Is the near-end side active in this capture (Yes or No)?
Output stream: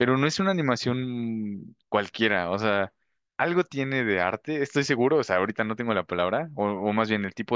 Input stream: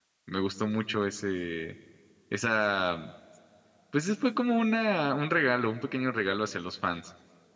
Yes